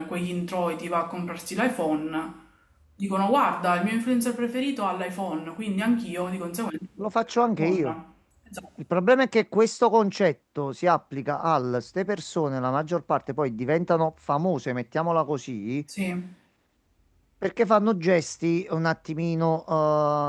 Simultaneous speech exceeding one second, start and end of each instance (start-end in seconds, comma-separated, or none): none